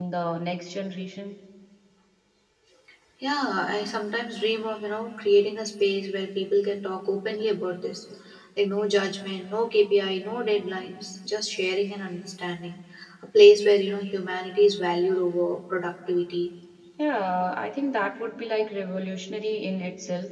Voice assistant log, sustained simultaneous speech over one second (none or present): none